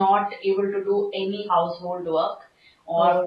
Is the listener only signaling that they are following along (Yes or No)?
Yes